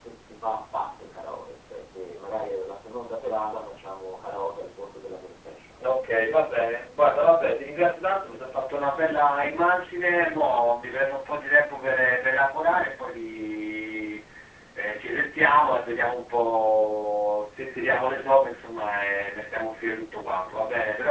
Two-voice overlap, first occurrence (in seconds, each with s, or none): none